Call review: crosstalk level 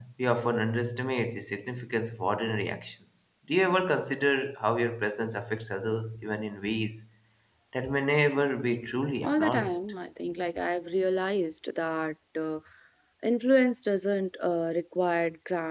present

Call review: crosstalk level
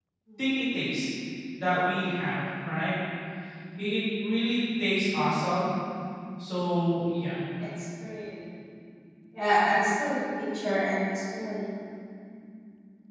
none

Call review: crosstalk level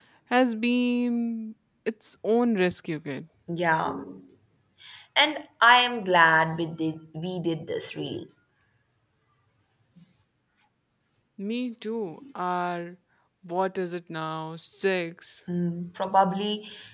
none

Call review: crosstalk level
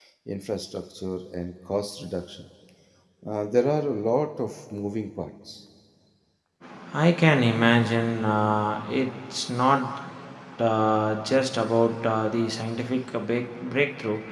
none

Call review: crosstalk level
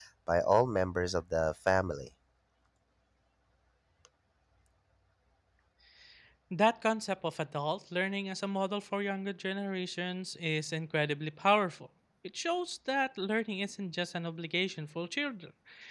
none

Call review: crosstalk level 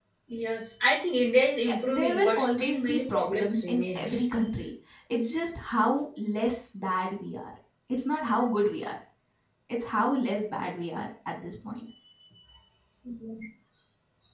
present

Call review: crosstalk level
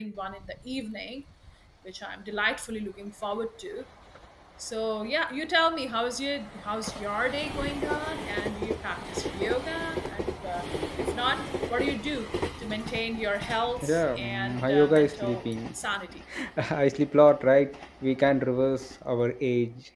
present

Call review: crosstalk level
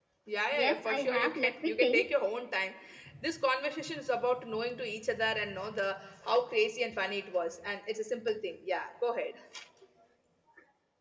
present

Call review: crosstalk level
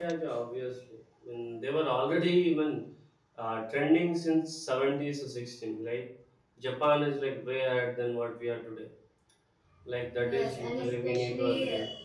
present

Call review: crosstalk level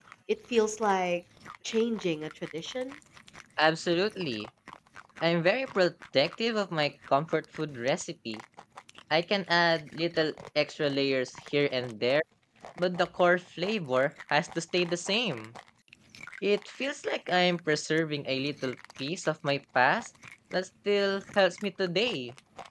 none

